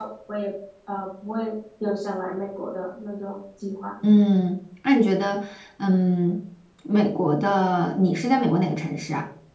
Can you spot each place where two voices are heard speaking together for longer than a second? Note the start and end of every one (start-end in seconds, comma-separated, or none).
none